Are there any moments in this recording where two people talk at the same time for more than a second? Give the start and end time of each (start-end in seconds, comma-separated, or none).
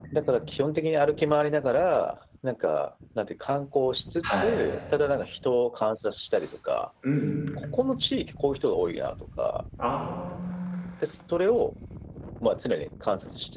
none